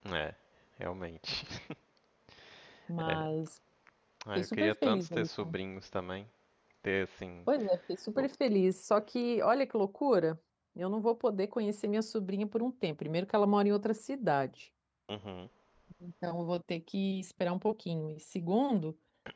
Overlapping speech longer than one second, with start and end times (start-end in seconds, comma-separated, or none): 4.4-5.6